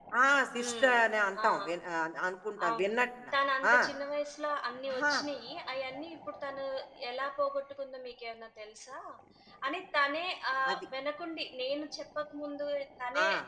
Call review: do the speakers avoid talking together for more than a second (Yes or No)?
Yes